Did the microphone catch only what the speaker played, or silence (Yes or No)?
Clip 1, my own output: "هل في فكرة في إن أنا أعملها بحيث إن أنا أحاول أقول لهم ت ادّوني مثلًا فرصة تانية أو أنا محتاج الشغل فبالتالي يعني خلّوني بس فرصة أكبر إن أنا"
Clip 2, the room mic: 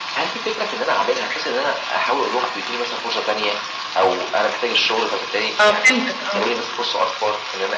No